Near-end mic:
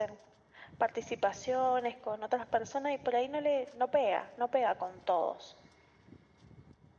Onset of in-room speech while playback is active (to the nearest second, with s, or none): none